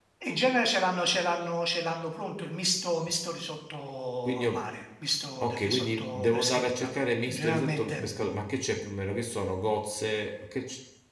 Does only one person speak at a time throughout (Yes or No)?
No